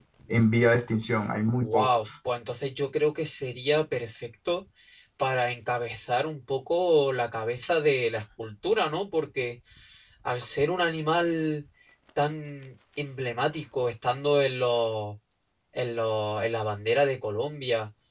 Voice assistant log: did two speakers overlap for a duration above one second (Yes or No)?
No